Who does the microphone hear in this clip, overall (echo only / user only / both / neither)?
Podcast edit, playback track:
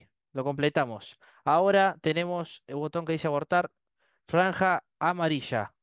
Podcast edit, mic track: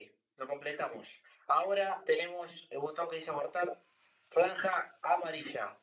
echo only